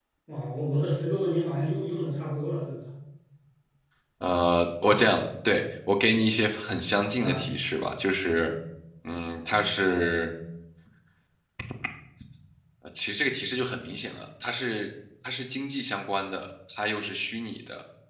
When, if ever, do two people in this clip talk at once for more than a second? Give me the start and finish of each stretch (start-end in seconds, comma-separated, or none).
none